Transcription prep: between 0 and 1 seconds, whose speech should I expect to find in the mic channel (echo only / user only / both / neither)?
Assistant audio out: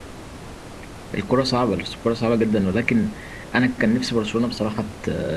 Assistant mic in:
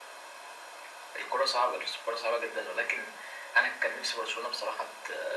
neither